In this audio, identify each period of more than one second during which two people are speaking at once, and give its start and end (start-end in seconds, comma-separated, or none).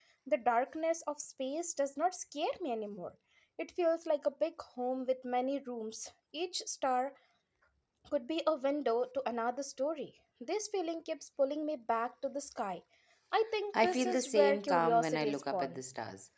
13.8-15.8